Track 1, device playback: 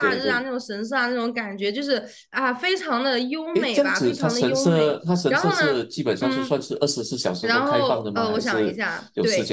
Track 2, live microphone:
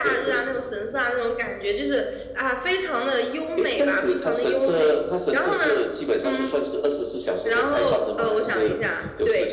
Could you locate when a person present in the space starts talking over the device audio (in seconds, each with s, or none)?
none